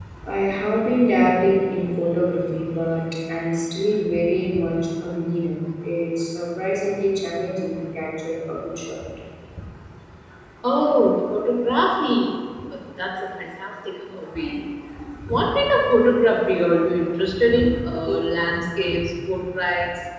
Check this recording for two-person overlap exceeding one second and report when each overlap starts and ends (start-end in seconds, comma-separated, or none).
none